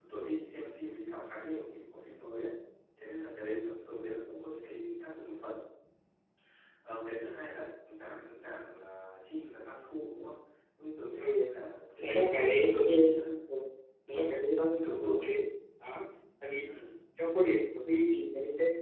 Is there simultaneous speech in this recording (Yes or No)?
Yes